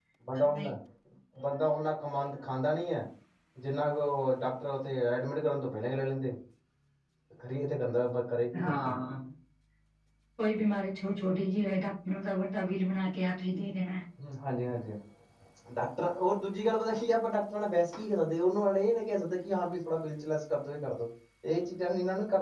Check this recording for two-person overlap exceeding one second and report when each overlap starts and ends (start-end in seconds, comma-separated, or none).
none